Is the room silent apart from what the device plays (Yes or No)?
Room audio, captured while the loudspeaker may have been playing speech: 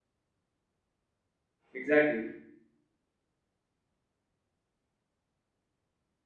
No